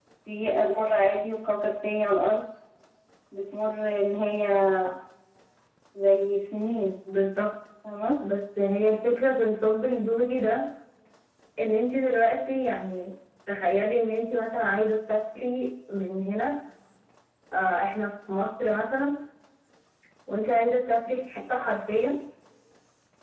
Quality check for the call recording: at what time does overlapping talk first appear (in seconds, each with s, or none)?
none